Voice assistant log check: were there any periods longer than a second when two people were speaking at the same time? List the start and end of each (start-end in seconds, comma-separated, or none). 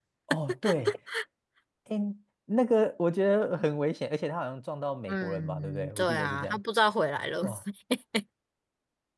5.1-6.6